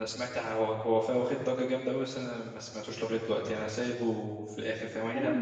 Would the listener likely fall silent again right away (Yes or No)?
No